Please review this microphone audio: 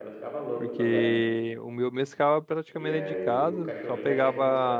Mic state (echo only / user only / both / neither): both